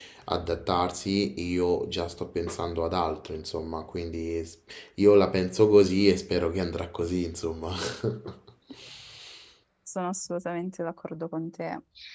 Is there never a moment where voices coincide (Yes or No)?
Yes